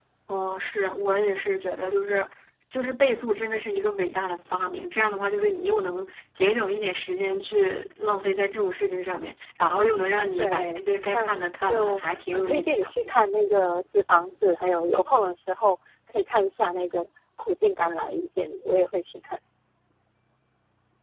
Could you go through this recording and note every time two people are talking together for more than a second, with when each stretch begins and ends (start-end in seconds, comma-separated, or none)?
10.4-12.9